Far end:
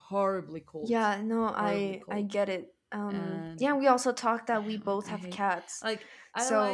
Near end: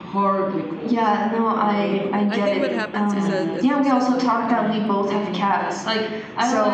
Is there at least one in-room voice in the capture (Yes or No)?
Yes